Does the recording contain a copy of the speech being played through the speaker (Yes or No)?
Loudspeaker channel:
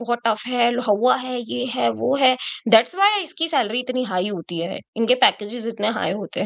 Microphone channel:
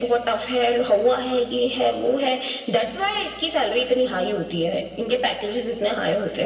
Yes